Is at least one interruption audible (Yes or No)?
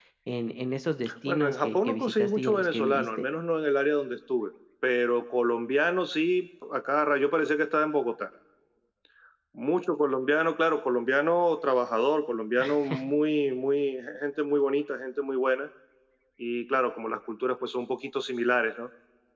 Yes